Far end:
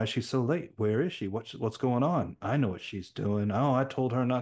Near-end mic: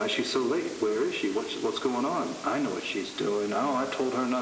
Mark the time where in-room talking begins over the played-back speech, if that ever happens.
none

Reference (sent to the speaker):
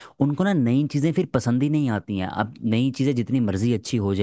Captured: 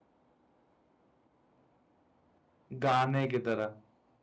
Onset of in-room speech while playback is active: 2.8 s

